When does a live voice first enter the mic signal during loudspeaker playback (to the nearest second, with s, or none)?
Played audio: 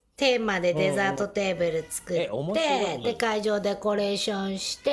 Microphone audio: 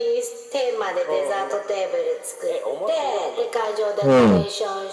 4 s